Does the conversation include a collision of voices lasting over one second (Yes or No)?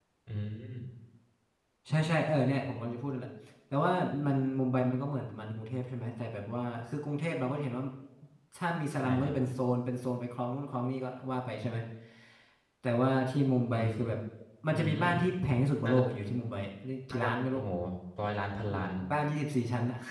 No